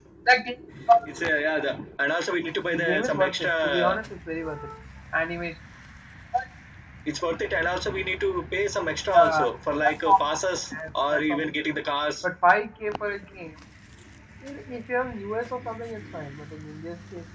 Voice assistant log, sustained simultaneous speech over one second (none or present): present